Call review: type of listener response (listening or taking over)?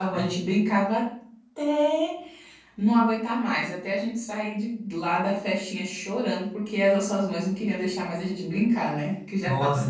taking over